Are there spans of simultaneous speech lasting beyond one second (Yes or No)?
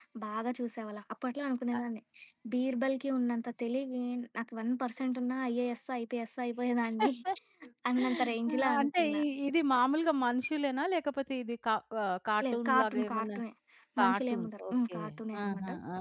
Yes